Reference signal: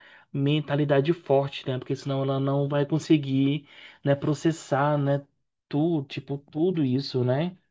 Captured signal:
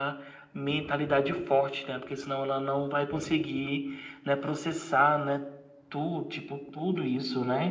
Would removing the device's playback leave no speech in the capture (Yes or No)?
Yes